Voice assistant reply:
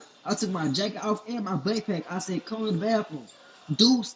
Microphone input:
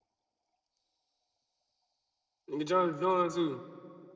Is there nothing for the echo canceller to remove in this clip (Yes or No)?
Yes